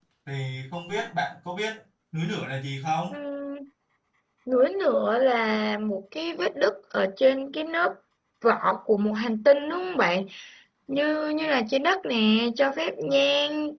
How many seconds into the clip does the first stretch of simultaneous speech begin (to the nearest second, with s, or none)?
none